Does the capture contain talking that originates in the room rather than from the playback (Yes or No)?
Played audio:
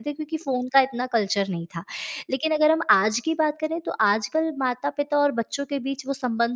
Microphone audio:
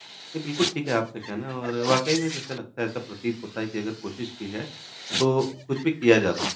Yes